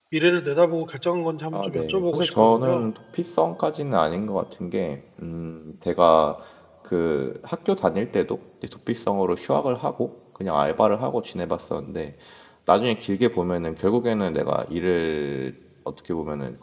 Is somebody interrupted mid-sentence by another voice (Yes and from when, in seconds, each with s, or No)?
Yes, from 1.5 s